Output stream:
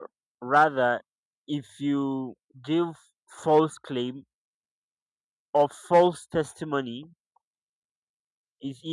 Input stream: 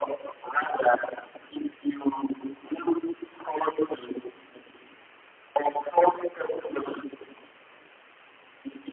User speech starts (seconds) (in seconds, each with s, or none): none